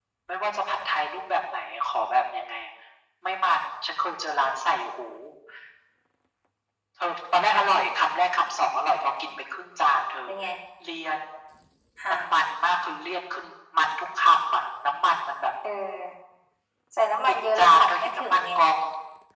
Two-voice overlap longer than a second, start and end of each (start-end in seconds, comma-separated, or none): 17.3-18.5